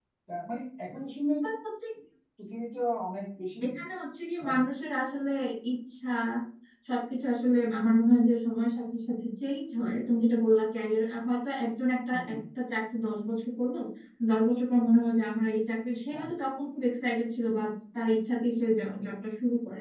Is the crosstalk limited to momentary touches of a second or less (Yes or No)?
Yes